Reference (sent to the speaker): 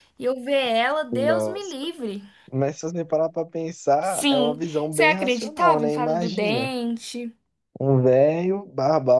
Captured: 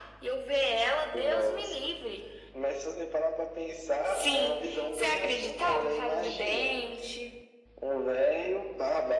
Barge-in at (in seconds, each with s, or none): none